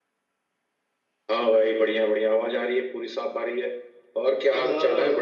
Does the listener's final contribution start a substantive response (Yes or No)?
Yes